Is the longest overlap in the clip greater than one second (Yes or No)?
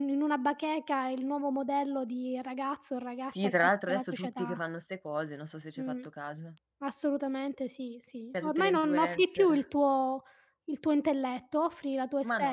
Yes